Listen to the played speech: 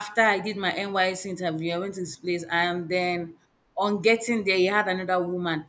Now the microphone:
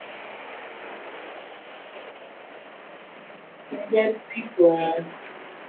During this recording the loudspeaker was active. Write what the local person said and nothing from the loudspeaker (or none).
I get big one.